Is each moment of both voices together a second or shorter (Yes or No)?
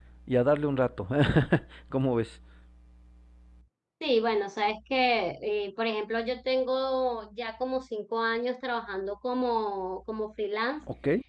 Yes